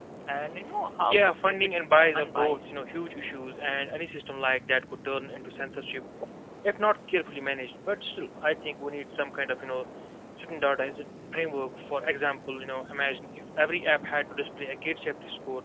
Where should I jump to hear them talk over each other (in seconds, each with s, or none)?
1.0 s